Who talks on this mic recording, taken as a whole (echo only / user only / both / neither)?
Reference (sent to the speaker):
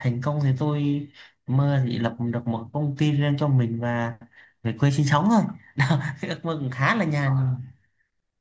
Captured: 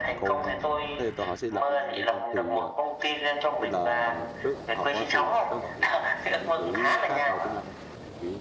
both